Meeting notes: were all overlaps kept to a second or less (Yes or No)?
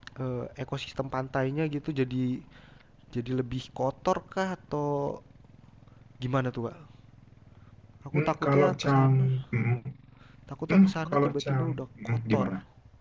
No